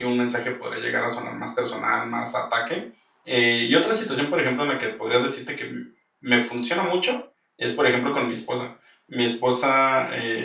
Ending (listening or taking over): listening